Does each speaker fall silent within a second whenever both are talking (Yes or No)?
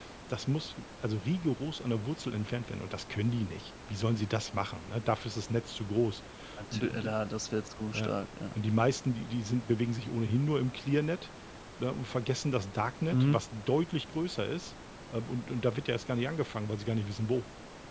Yes